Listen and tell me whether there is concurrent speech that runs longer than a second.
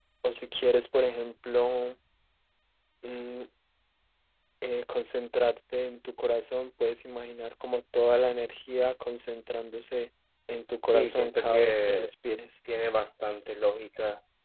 Yes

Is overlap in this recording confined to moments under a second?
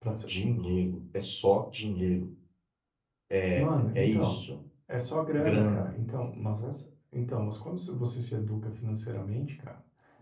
Yes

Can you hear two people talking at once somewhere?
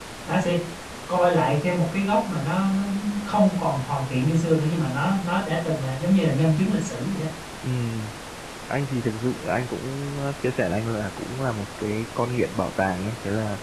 No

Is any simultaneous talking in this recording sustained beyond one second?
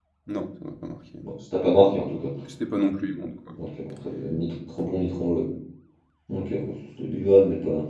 No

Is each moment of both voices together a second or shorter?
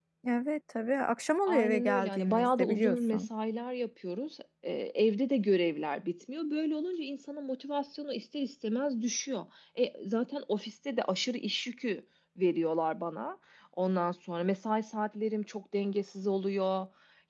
No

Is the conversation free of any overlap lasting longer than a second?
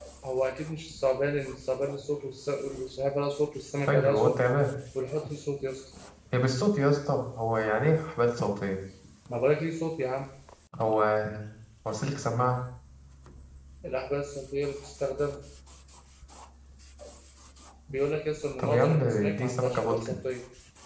No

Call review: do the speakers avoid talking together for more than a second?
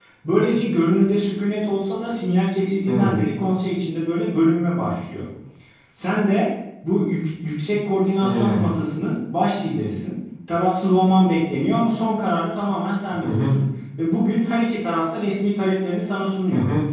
Yes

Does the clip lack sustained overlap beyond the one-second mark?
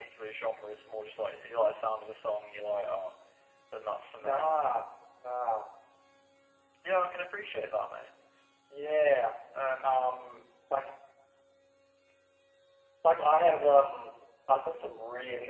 Yes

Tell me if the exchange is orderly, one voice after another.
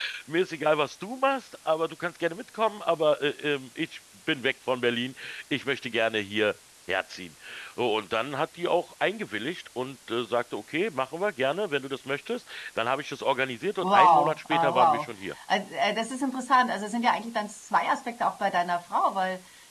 No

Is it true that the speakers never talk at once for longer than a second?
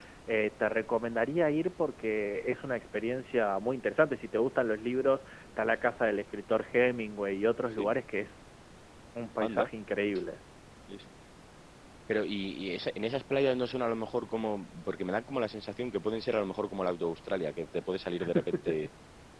Yes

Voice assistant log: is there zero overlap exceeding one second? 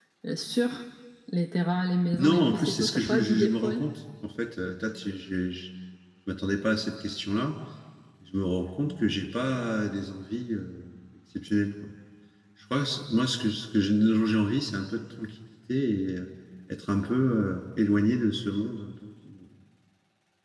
No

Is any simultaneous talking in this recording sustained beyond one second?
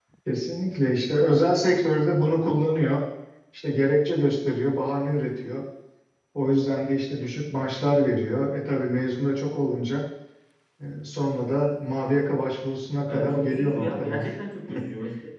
Yes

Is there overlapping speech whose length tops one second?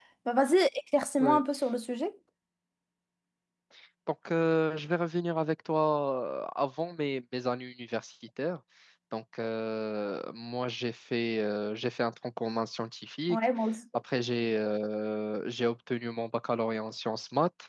No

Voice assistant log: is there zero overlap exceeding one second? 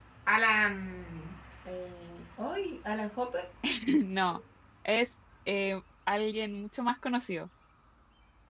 Yes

